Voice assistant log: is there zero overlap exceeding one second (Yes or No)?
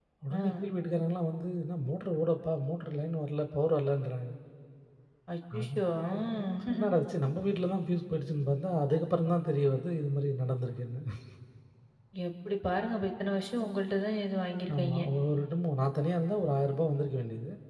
Yes